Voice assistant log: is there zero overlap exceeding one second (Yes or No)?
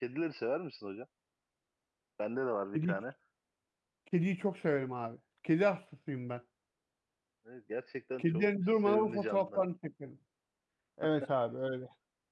No